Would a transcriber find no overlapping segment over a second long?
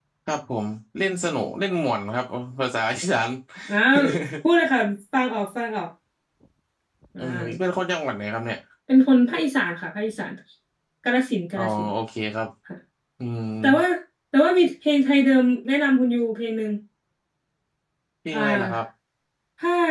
Yes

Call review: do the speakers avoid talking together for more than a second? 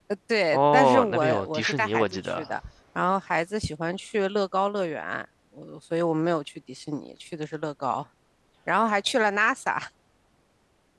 No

